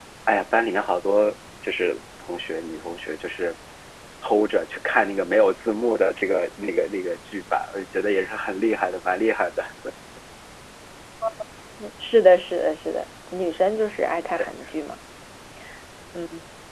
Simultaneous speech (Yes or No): No